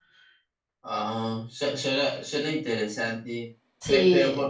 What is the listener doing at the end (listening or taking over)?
listening